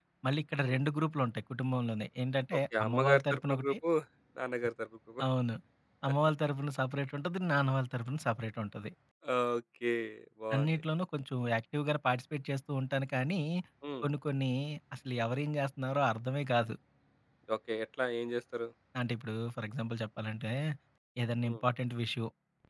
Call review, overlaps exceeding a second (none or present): present